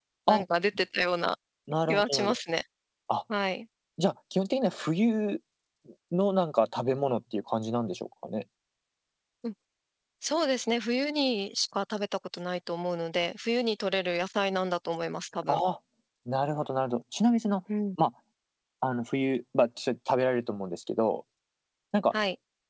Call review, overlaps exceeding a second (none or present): none